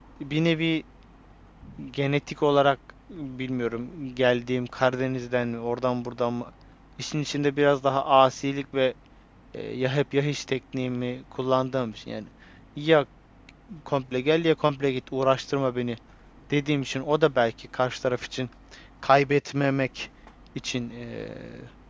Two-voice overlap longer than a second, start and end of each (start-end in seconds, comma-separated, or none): none